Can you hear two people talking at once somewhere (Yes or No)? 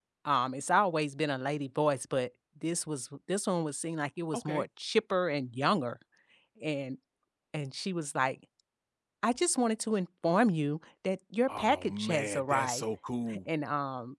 Yes